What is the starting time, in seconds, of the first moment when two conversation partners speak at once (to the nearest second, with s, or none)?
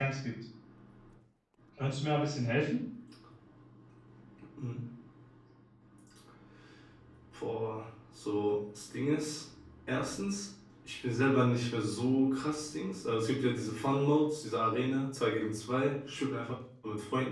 none